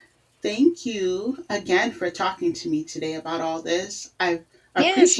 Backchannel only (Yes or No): No